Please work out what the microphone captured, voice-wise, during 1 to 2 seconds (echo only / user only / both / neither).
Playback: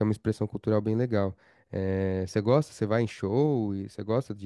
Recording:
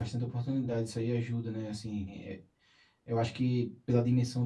user only